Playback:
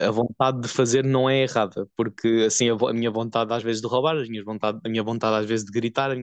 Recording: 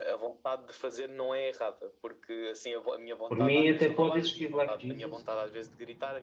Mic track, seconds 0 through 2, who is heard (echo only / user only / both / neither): echo only